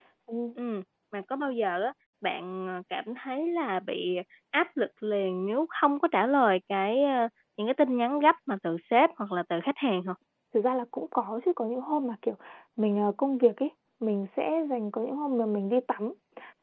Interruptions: none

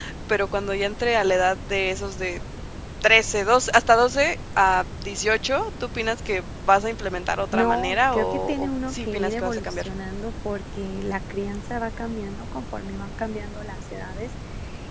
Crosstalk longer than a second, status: present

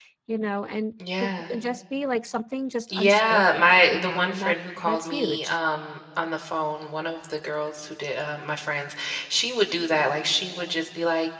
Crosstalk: present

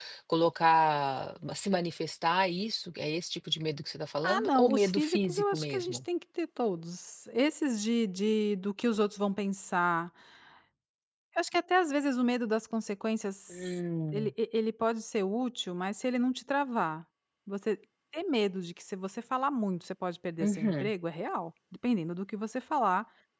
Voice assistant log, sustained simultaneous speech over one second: present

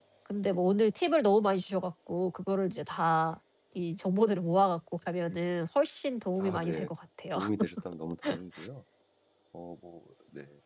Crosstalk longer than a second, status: none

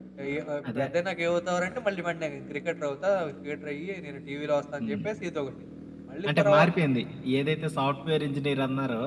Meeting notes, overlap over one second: none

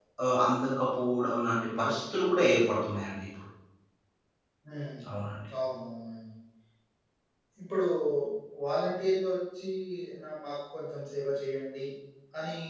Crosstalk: none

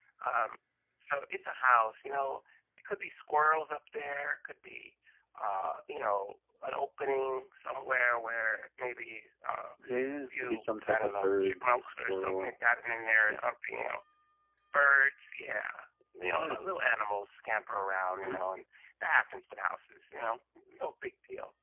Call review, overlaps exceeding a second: present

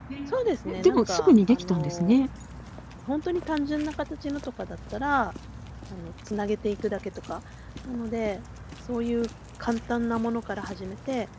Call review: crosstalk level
present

